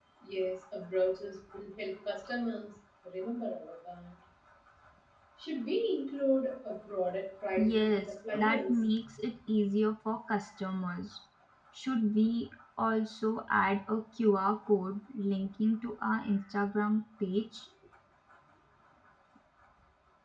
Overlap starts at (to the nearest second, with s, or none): 8 s